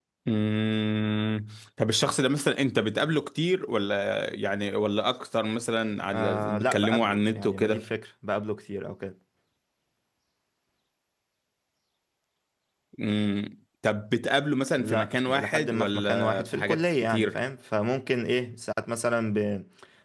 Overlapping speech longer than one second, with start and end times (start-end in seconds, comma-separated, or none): 6.1-7.8, 14.8-17.4